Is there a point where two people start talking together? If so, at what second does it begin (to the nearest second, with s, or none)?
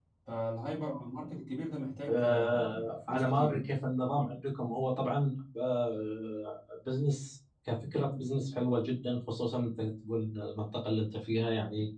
2 s